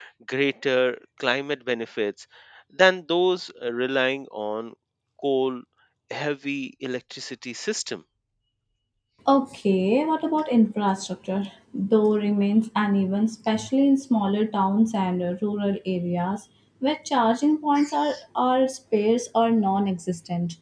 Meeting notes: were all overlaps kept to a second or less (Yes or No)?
Yes